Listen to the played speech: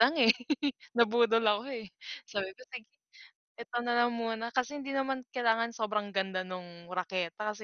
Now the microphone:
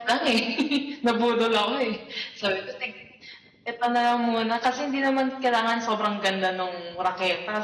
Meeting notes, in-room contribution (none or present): none